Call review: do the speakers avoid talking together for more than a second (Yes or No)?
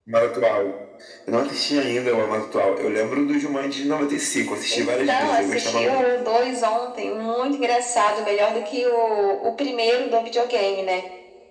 No